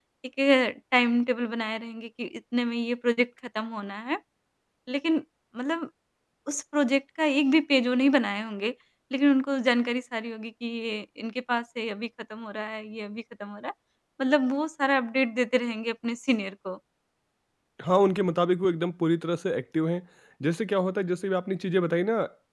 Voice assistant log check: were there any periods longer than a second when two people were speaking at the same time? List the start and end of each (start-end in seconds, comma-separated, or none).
none